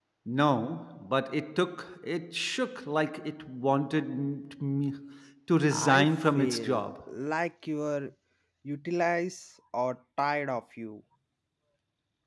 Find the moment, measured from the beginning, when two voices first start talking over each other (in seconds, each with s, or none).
5.7 s